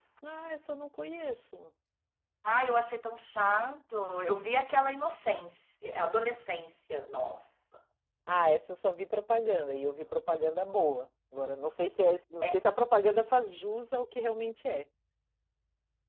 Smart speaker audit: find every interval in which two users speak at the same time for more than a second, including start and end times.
none

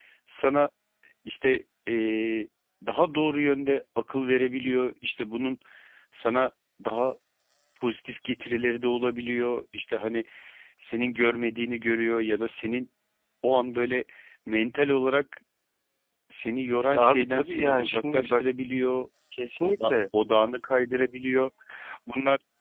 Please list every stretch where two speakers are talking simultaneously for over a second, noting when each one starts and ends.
16.9-18.4

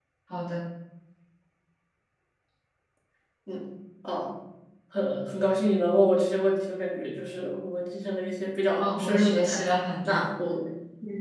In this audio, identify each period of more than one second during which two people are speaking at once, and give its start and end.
8.8-10.2

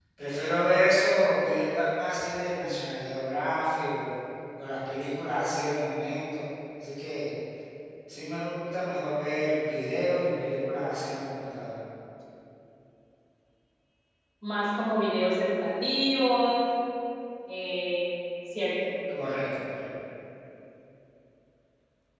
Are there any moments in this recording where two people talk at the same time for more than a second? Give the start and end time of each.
none

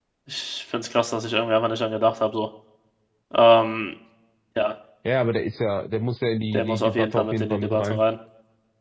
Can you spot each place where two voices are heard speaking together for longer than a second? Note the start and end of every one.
6.5-8.0

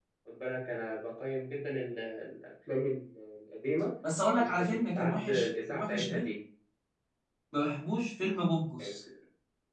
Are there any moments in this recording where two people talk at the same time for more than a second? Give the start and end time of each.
4.4-6.3

